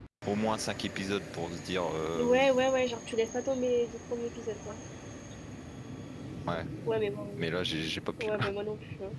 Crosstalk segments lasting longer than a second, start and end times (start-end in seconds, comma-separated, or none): none